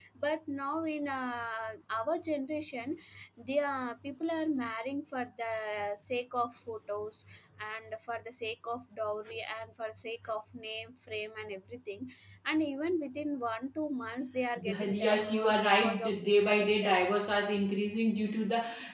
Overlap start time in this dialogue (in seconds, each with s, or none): 14.6 s